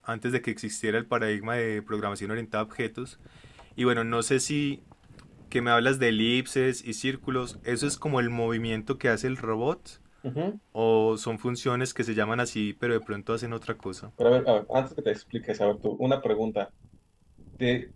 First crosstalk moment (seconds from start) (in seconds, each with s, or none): none